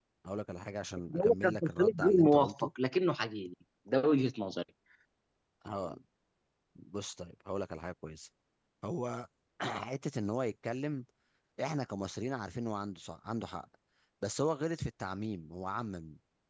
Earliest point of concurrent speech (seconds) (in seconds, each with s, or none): 1.1 s